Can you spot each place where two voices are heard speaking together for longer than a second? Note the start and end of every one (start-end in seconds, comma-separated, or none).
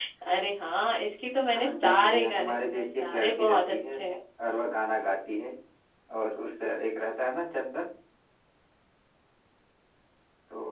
1.5-4.0